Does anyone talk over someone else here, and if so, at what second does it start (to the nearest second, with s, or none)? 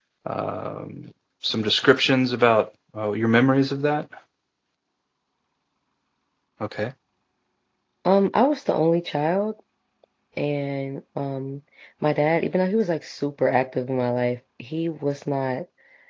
none